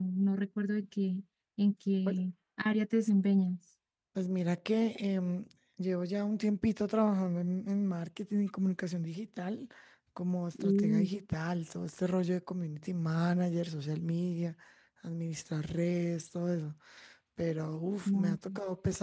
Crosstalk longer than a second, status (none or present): none